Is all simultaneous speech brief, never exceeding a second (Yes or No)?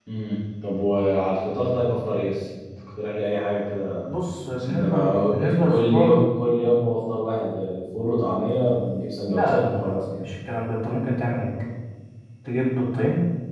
No